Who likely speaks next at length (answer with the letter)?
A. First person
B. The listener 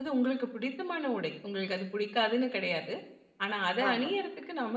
A